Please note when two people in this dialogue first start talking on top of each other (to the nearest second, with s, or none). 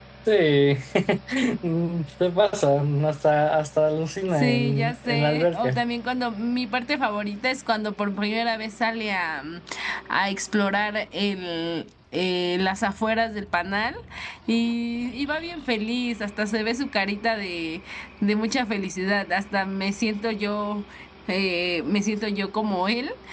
4 s